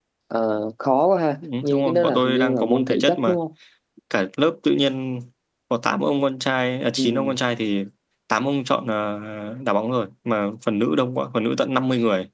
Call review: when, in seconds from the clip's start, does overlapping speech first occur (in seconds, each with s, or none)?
1.4 s